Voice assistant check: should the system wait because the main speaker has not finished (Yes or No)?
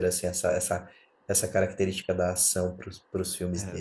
No